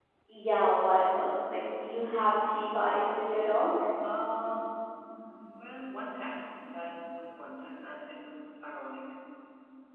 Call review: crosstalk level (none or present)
none